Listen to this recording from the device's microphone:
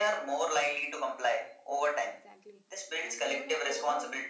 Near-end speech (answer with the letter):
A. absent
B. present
B